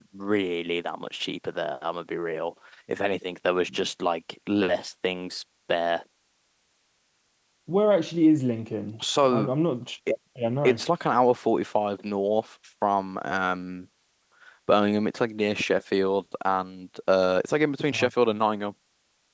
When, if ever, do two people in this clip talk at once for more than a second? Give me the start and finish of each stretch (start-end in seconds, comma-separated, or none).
none